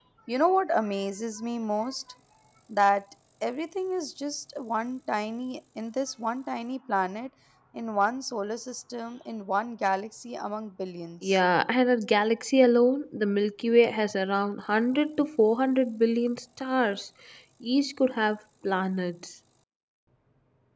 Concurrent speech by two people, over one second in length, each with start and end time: none

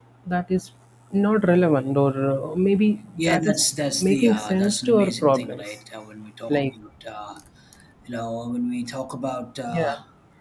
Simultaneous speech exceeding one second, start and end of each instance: 4.0-5.7

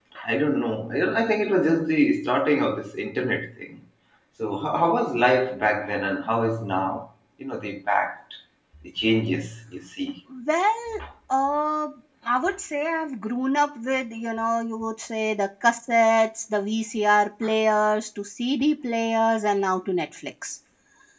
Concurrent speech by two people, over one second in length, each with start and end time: none

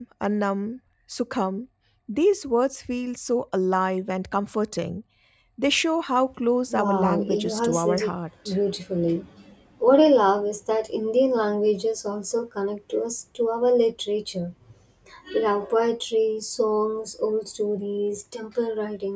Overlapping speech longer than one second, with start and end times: 6.8-8.1

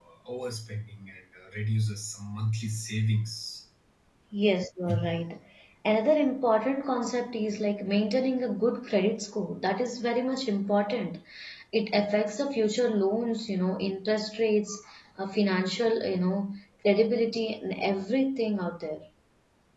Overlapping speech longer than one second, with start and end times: none

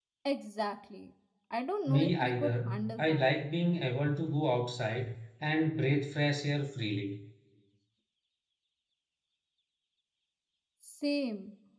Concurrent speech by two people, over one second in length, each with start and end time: 1.9-3.3

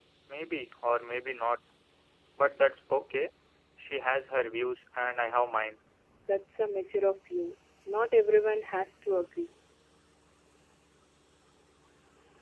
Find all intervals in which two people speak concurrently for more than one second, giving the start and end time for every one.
none

